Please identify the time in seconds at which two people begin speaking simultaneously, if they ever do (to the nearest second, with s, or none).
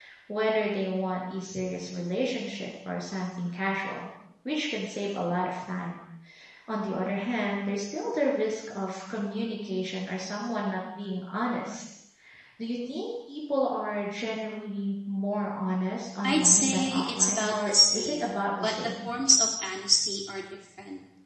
16 s